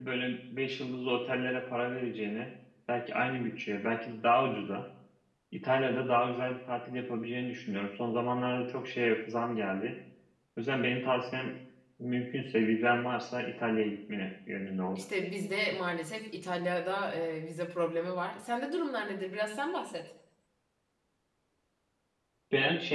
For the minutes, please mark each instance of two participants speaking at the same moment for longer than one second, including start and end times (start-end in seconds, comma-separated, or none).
none